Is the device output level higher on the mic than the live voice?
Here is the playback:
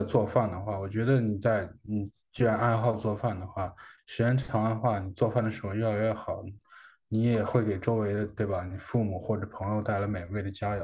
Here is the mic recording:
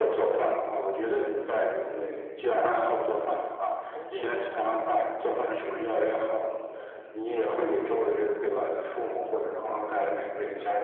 Yes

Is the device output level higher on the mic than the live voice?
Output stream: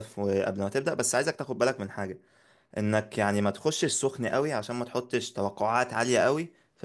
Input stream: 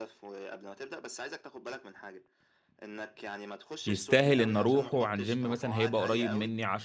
No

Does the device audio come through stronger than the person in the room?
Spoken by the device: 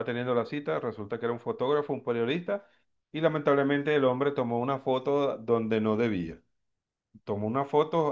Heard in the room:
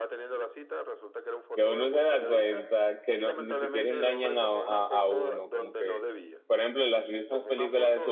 No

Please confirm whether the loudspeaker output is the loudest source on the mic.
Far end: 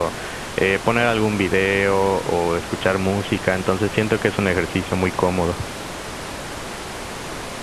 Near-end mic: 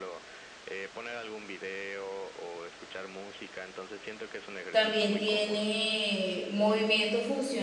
No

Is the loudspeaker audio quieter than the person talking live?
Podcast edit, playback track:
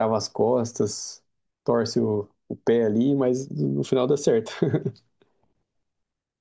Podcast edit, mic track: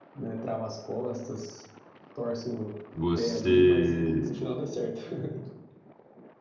Yes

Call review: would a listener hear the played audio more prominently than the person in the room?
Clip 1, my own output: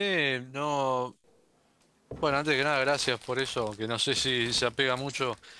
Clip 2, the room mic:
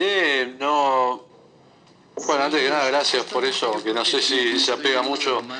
Yes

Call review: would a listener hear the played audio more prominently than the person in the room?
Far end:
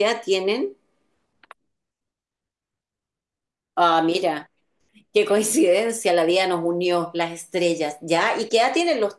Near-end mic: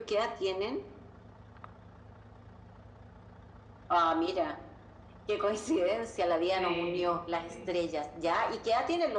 Yes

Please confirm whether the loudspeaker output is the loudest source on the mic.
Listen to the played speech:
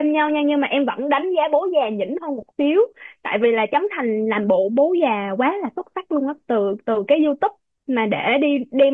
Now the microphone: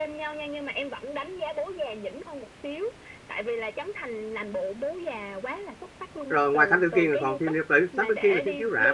No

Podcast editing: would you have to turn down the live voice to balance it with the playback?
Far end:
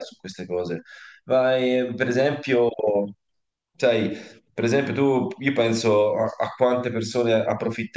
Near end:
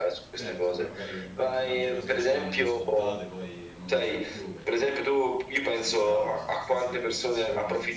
No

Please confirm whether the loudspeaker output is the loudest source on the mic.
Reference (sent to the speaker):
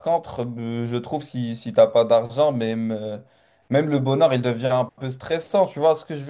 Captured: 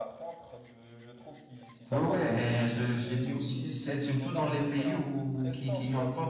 No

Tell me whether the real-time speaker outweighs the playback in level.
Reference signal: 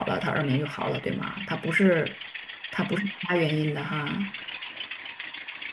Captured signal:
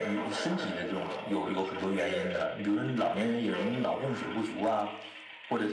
Yes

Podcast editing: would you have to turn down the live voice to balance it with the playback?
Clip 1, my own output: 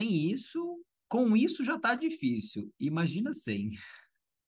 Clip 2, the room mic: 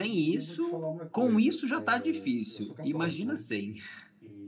No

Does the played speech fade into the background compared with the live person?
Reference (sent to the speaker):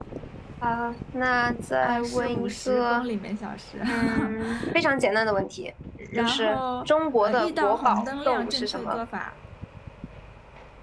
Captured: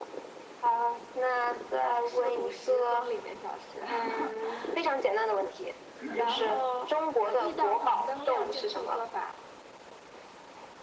No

